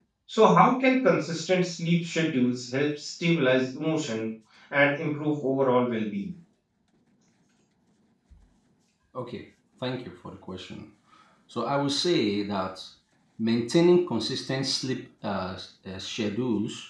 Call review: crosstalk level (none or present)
none